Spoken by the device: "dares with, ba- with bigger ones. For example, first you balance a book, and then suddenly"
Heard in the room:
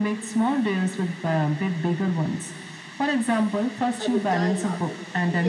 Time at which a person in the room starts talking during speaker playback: 4.0 s

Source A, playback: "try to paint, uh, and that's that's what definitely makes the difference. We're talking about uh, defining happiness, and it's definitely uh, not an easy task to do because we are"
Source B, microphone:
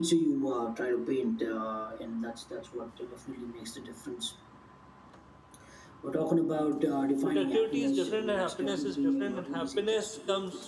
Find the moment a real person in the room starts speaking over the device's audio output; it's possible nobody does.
7.2 s

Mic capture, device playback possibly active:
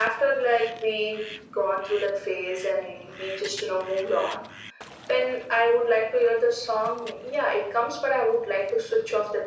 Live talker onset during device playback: none

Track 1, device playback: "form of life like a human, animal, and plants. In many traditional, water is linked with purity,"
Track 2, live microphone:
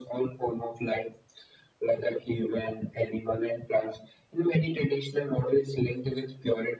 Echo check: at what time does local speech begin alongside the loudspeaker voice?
none

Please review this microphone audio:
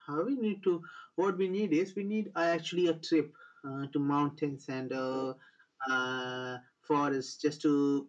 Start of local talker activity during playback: none

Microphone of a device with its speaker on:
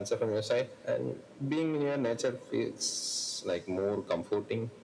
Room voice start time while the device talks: none

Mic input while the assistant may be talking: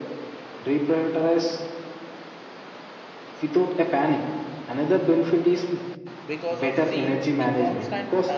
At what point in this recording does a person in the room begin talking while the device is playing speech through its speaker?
6.2 s

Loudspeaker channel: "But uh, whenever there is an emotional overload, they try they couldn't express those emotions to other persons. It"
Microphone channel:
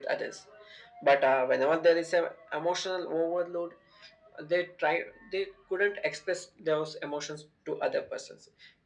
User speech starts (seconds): none

